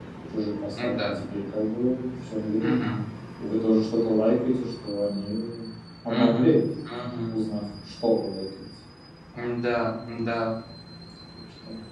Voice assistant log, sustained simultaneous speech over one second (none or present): none